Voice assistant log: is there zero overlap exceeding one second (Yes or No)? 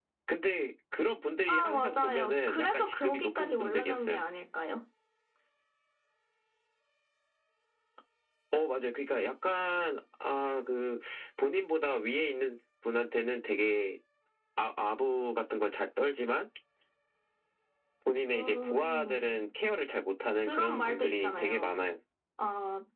No